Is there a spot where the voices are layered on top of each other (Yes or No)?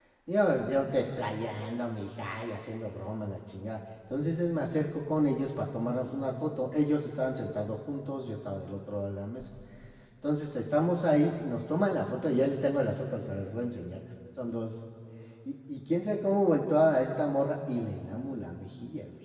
No